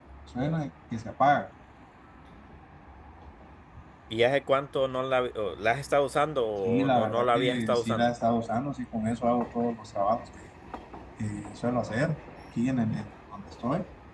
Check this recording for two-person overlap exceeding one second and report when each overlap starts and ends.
6.6-8.1

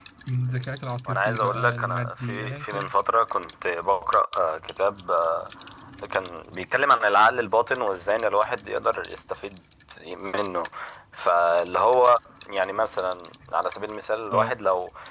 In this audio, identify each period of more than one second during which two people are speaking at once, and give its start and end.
1.1-2.9

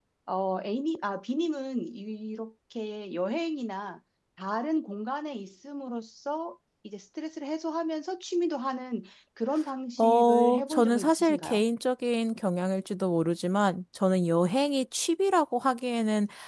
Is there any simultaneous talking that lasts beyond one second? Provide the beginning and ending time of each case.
10.0-11.6

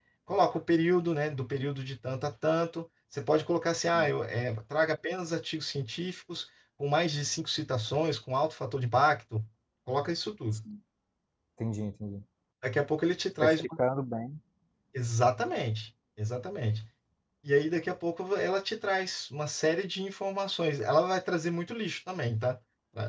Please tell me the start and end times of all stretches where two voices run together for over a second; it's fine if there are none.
none

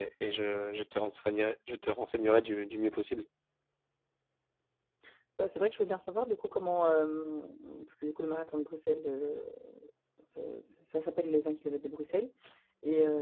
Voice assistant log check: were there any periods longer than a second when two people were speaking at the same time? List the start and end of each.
none

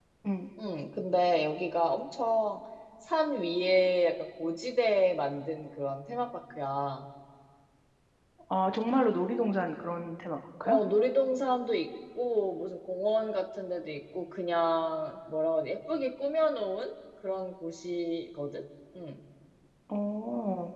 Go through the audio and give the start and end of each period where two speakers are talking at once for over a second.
none

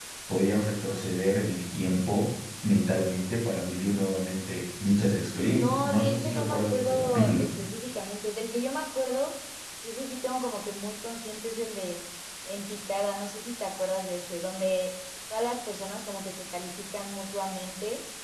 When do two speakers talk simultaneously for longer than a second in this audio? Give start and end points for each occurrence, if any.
5.5-7.5

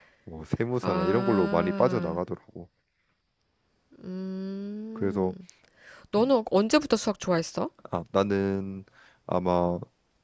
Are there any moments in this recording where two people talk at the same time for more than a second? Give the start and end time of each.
0.8-2.2

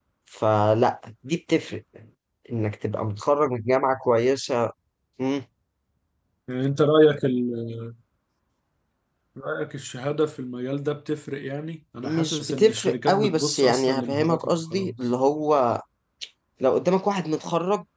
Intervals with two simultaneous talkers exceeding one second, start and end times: 12.0-14.9

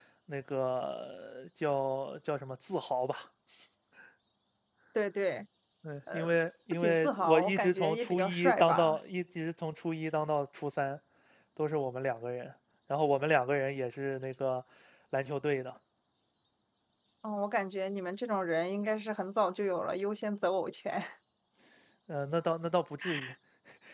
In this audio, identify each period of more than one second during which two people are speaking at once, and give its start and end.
6.7-9.0

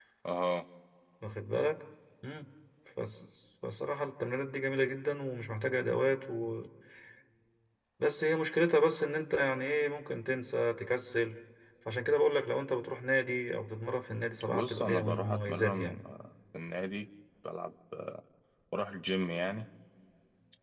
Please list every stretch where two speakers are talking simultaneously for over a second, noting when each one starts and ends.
14.5-16.0

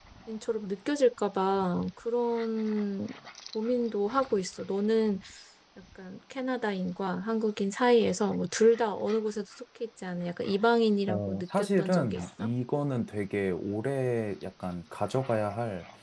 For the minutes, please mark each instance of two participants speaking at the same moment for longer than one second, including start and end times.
11.1-12.5

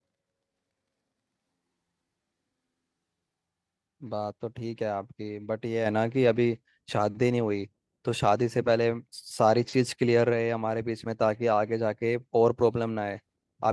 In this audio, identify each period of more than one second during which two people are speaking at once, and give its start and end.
none

